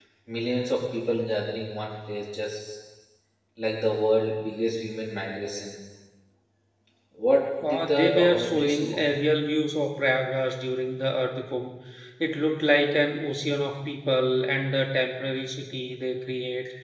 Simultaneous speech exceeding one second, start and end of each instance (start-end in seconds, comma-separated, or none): 7.6-9.0